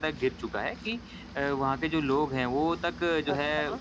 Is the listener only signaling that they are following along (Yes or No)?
Yes